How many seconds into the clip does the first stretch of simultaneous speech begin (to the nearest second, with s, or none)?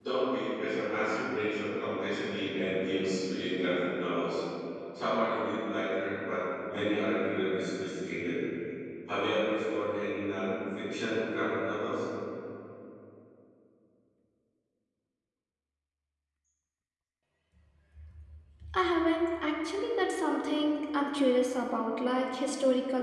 none